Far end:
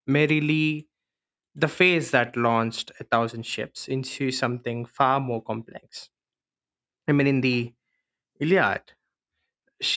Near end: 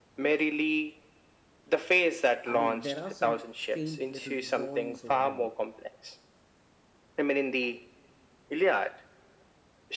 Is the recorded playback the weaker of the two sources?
No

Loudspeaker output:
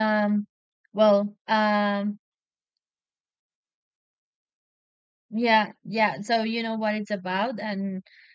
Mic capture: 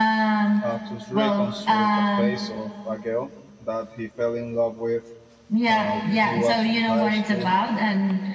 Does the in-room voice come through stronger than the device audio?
No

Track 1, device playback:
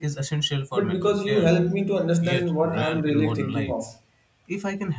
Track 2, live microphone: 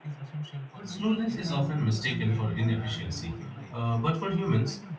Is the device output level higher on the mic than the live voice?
No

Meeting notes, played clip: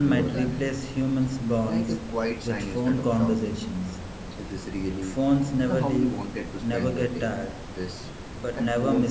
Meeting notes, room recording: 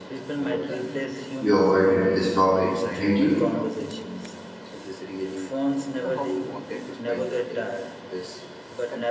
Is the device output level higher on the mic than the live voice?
No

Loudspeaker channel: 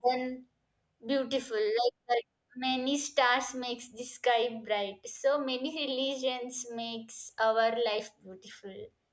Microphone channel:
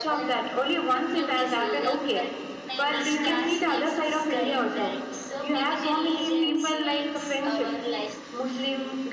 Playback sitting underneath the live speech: Yes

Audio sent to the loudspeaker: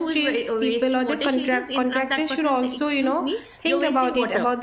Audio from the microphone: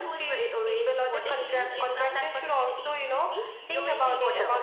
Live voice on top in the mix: No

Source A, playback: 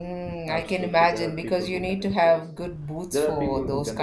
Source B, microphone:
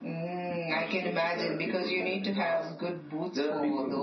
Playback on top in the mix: Yes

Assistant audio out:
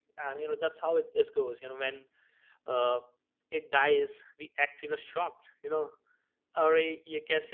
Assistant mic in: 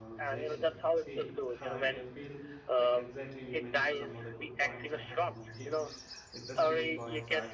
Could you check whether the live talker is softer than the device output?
Yes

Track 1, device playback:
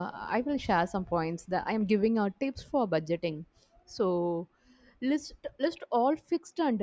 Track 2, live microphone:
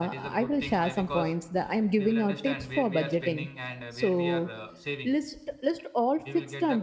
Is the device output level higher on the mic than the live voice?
Yes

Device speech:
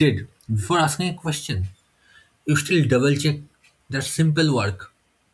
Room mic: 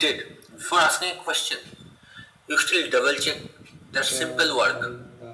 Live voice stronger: No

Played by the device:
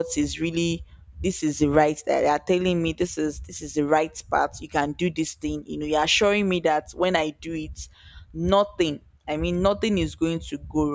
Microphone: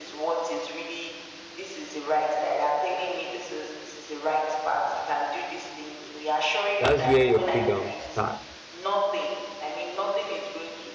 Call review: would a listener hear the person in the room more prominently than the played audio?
Yes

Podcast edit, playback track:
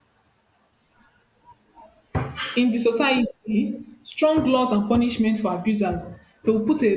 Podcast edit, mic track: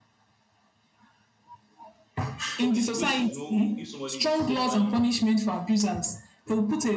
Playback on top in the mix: Yes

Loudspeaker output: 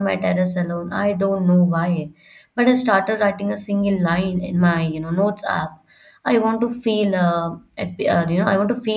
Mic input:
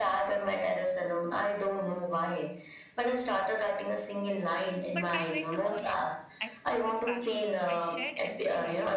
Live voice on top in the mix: No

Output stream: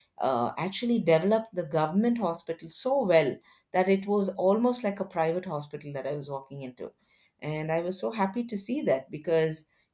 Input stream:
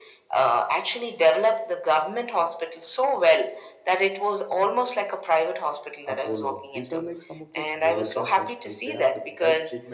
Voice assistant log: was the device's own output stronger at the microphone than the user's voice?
Yes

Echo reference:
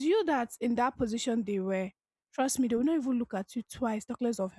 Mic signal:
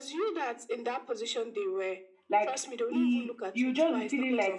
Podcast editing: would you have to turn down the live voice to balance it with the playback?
Yes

